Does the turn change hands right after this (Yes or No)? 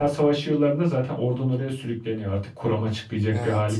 Yes